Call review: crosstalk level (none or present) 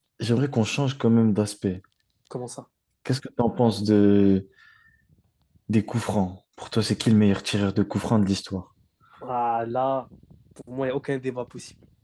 none